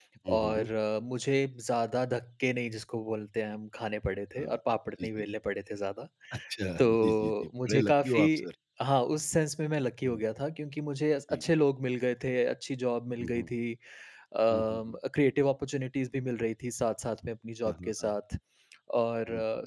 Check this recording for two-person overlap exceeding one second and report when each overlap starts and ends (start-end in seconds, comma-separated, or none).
6.8-8.2